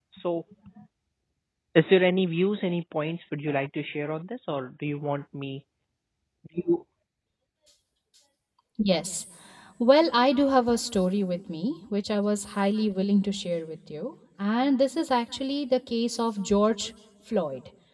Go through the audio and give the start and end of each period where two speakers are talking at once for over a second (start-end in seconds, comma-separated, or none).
none